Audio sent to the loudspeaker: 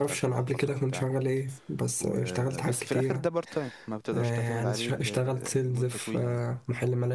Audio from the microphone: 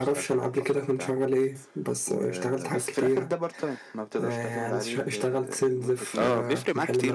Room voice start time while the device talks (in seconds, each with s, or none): 6.2 s